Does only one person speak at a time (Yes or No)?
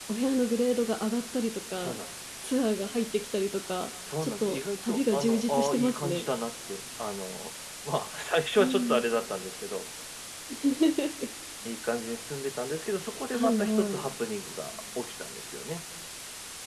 No